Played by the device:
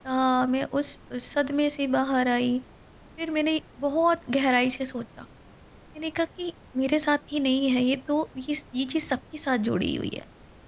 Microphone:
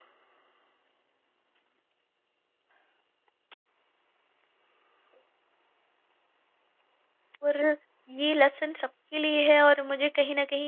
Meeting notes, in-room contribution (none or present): present